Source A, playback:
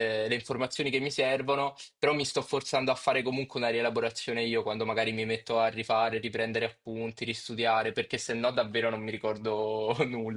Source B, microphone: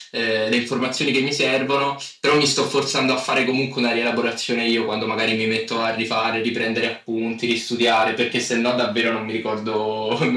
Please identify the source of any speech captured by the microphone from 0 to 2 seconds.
echo only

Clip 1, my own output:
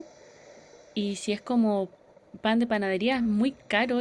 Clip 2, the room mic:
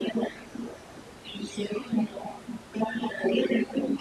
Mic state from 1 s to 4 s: echo only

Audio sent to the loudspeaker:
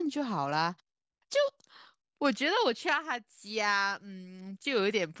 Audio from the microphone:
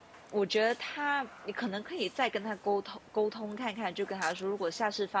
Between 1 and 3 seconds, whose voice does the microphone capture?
user only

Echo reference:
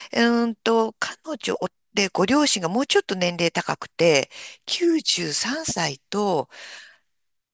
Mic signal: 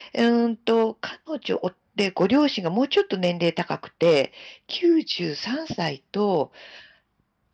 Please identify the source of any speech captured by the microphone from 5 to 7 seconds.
echo only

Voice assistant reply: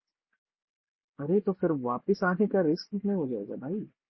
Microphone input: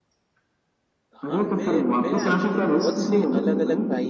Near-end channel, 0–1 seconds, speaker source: neither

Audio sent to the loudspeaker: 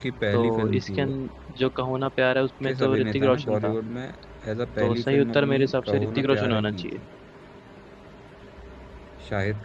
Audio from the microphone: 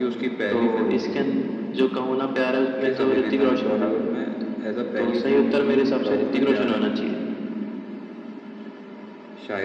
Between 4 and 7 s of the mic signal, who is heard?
echo only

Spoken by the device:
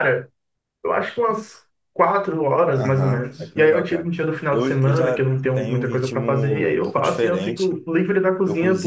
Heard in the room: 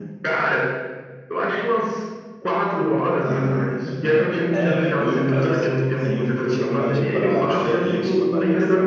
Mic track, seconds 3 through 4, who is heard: echo only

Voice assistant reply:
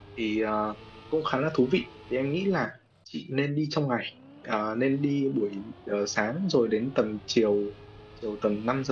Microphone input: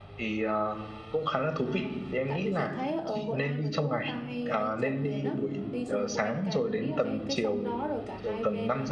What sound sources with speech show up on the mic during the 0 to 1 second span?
echo only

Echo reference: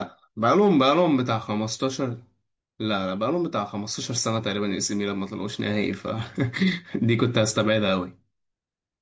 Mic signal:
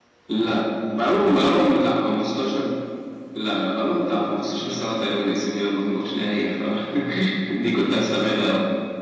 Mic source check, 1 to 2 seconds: echo only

